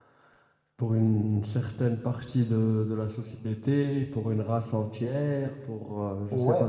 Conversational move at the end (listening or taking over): taking over